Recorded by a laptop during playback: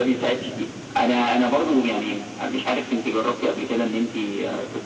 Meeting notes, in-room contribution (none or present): none